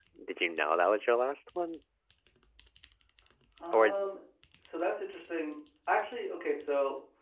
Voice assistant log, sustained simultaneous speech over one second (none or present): none